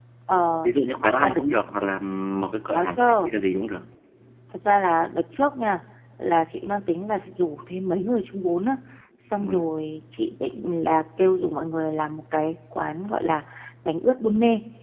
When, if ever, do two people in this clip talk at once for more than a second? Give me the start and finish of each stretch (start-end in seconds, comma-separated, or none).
none